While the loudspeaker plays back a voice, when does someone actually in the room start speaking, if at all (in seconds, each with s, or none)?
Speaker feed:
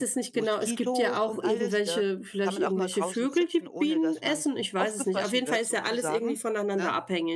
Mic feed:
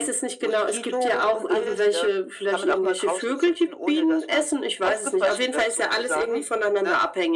none